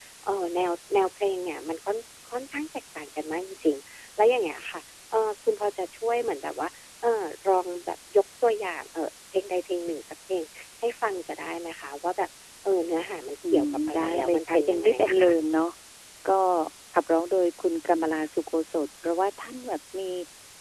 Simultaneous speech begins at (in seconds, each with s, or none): 13.4 s